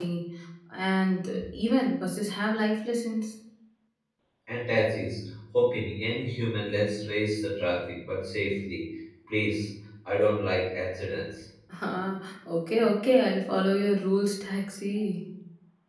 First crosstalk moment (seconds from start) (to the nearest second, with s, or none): none